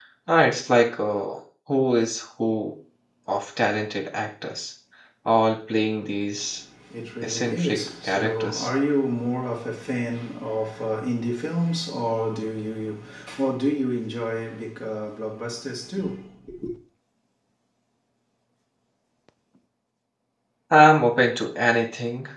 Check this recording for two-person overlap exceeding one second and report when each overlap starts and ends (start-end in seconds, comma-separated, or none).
7.2-8.7